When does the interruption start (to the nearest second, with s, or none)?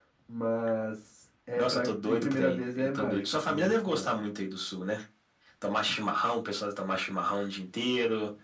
2 s